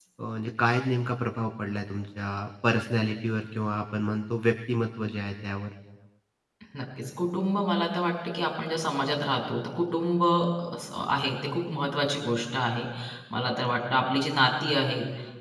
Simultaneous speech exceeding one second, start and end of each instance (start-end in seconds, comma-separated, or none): none